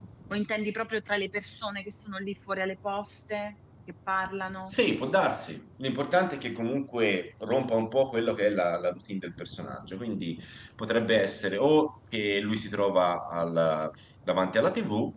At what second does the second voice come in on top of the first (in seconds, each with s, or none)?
none